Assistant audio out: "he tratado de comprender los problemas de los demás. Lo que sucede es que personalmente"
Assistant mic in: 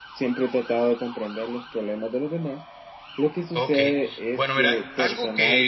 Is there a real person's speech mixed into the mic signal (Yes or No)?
Yes